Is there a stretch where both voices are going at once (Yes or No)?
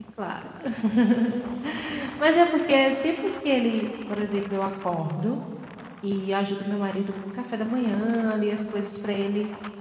No